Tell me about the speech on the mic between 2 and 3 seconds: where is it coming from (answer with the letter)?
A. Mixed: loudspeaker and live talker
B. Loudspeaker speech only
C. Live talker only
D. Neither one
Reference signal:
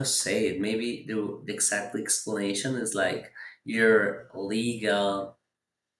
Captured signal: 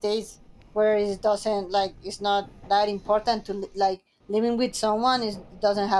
C